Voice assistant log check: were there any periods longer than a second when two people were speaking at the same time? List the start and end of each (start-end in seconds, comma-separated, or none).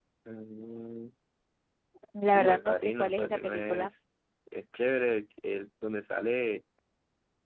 2.3-3.9